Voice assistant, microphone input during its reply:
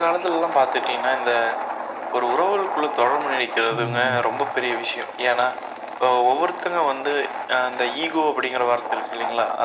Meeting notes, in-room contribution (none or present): present